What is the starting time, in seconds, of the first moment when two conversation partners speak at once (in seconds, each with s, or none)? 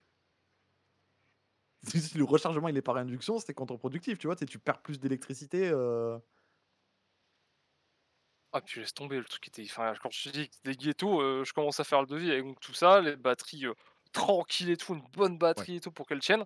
none